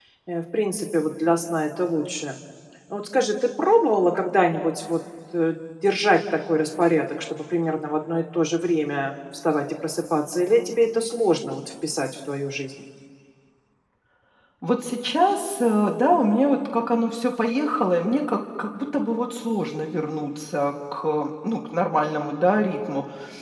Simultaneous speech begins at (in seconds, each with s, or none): none